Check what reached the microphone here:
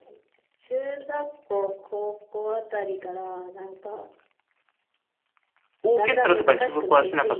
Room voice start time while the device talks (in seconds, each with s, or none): 5.8 s